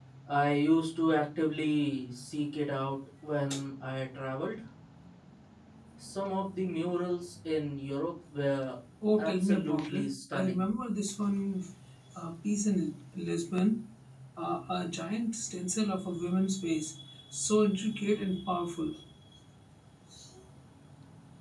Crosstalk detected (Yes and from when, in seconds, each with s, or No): Yes, from 9.0 s